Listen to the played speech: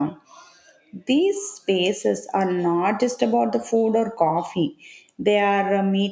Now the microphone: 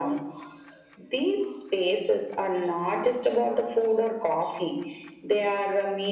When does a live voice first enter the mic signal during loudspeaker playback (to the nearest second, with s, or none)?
none